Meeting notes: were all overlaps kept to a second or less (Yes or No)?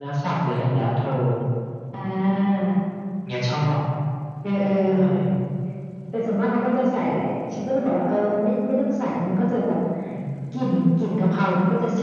Yes